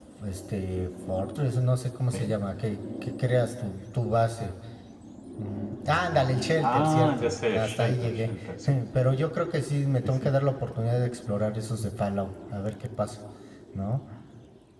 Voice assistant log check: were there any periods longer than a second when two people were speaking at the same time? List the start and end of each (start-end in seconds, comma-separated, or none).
5.5-8.3